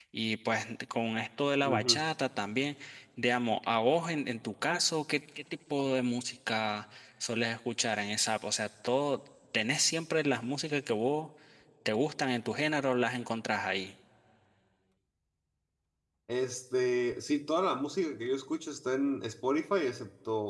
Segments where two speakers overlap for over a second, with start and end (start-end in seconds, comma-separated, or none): none